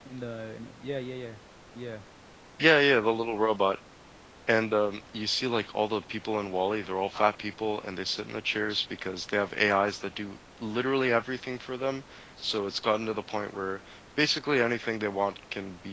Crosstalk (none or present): none